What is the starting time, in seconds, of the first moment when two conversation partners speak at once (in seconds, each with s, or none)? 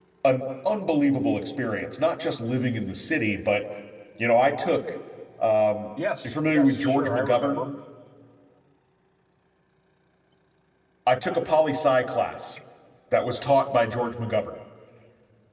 6.2 s